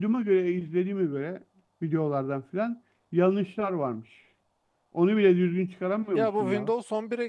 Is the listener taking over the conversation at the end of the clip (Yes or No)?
Yes